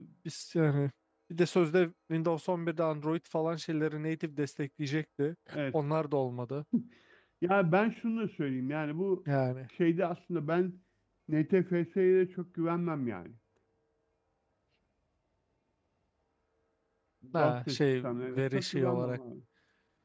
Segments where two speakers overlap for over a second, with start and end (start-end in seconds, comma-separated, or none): 17.4-19.2